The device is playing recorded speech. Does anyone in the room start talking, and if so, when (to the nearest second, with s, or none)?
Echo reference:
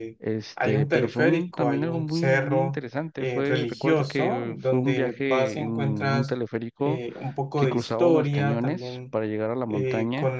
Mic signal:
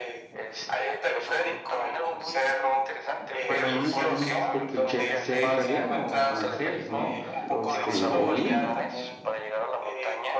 3 s